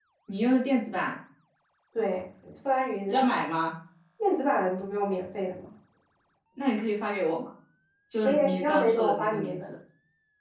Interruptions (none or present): present